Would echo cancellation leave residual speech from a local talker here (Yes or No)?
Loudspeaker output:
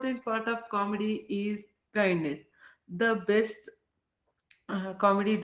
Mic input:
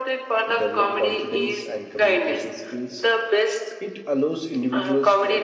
Yes